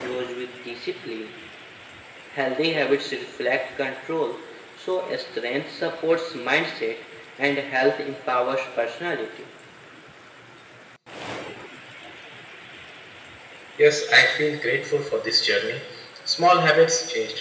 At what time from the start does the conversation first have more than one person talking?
none

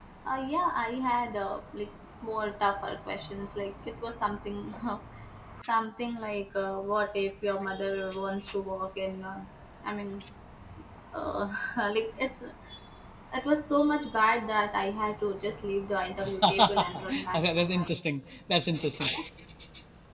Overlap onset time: 16.2 s

